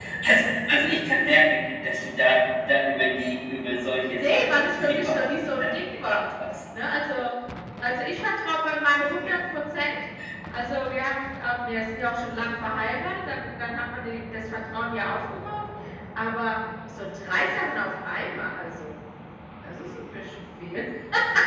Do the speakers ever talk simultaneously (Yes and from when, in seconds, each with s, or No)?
Yes, from 4.1 s